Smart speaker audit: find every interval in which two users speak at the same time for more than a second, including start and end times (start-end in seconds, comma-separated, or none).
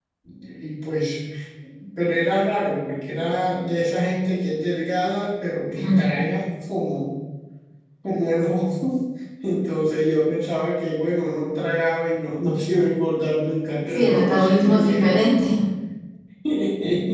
13.9-15.2